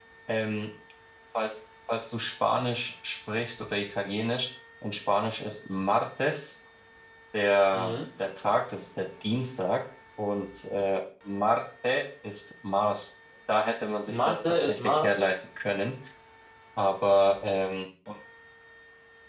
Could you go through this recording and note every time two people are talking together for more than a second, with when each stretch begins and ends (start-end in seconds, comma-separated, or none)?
14.1-15.3